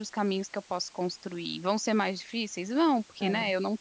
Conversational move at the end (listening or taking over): listening